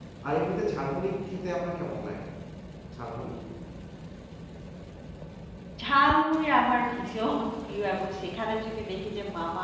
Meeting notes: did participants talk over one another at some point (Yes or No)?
No